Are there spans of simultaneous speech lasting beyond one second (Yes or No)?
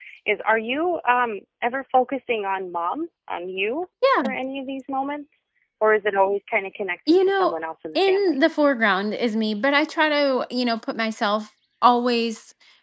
No